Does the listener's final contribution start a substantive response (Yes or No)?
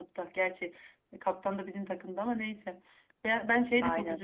No